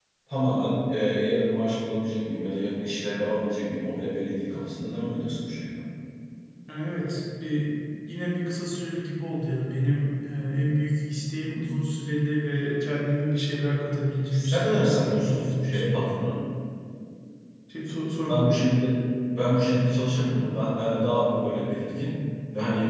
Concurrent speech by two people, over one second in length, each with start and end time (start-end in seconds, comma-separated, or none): 14.3-16.1